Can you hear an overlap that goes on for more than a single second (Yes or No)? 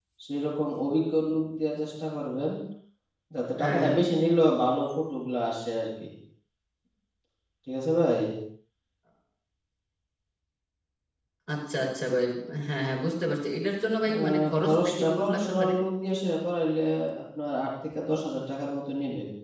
Yes